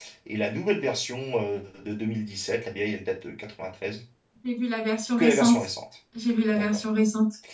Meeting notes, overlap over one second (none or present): none